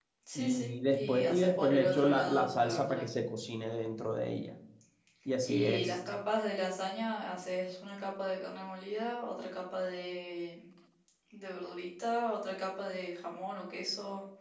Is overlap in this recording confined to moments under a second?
No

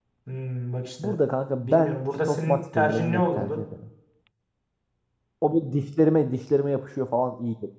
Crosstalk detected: Yes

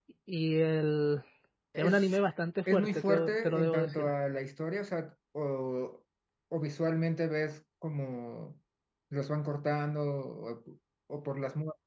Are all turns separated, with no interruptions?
No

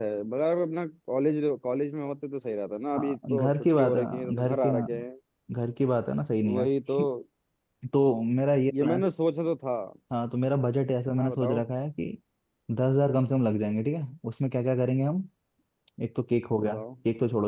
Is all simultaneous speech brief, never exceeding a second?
No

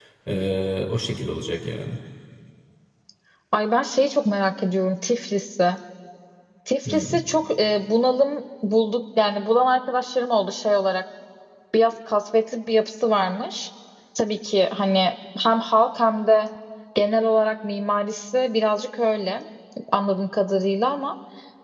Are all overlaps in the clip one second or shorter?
Yes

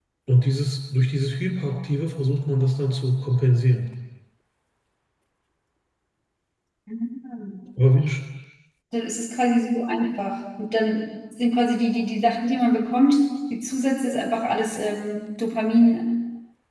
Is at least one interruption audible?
No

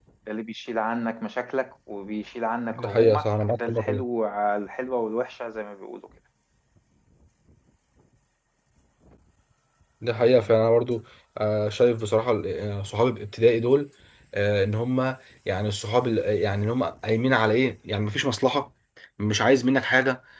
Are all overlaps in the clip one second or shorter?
No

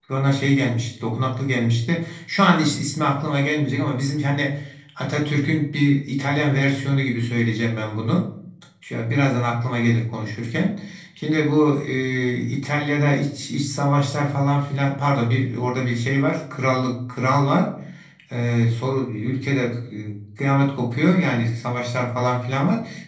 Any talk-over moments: No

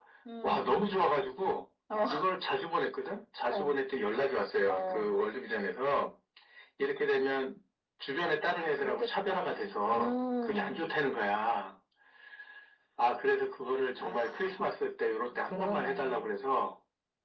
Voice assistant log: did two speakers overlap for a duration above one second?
Yes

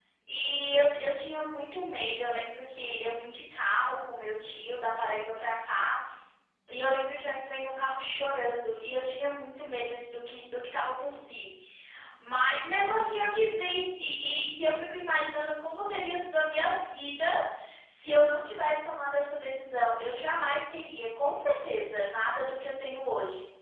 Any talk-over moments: No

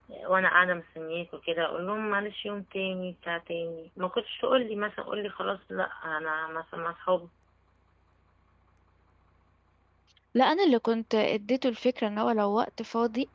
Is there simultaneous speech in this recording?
No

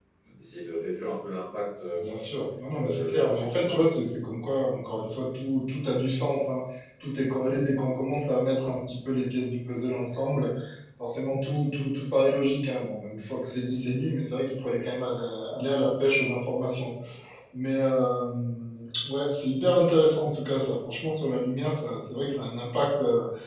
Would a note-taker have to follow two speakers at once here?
Yes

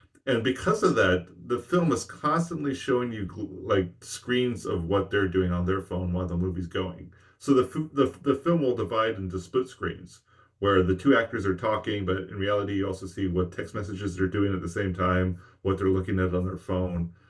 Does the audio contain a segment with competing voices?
No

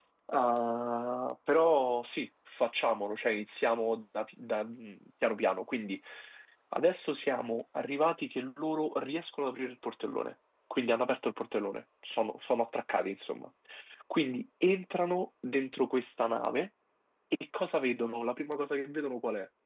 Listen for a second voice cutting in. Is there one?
No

